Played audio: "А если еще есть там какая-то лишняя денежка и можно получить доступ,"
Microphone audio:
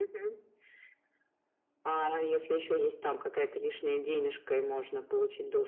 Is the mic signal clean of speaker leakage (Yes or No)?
No